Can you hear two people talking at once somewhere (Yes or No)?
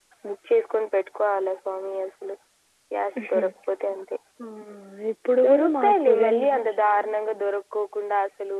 Yes